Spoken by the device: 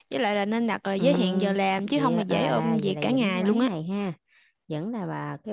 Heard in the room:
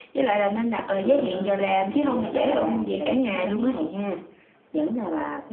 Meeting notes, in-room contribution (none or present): none